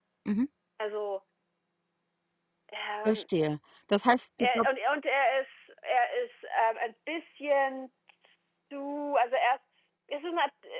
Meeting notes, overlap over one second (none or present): none